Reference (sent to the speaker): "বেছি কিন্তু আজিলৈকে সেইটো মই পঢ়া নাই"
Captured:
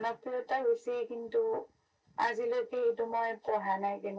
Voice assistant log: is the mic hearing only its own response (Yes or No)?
Yes